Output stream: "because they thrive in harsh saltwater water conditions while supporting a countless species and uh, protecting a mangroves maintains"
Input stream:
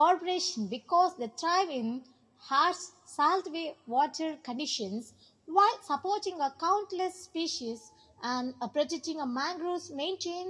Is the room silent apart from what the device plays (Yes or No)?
Yes